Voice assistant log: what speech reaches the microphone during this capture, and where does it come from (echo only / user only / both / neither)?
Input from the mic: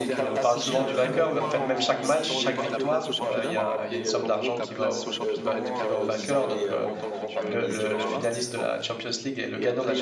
both